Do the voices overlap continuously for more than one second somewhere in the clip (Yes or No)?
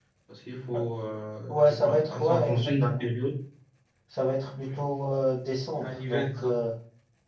Yes